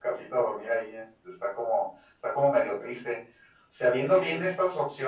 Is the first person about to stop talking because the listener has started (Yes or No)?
No